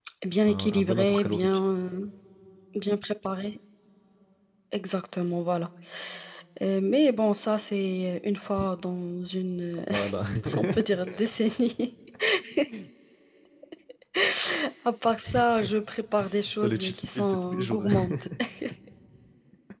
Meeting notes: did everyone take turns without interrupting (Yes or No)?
No